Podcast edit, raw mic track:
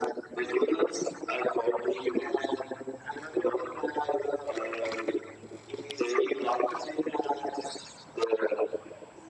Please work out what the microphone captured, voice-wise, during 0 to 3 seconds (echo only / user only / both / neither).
echo only